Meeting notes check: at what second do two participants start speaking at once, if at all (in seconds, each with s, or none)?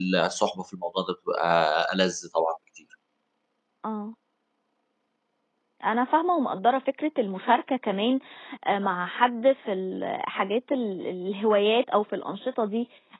none